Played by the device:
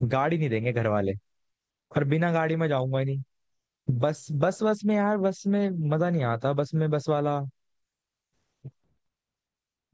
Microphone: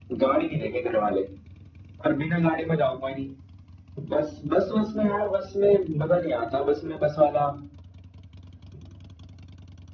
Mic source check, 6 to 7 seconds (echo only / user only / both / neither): echo only